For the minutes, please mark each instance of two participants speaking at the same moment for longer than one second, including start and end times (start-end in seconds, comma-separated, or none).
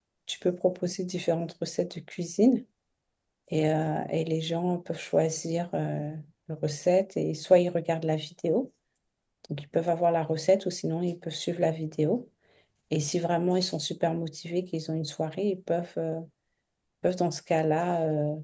none